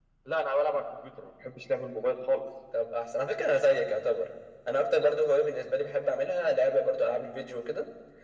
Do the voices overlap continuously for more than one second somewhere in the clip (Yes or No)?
No